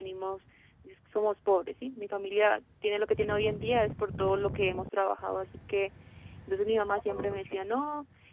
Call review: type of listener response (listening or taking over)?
listening